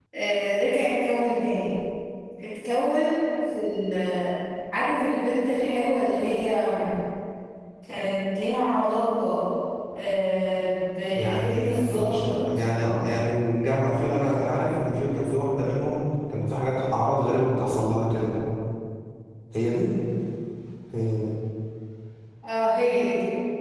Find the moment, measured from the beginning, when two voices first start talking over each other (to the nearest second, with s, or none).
11 s